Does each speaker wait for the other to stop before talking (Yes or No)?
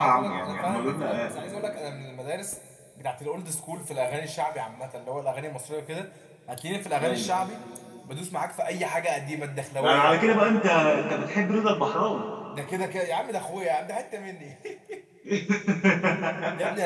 No